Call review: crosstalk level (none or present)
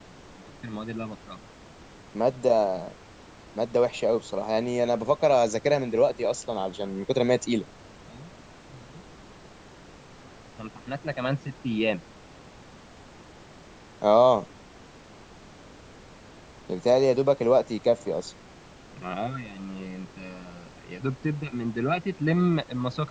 none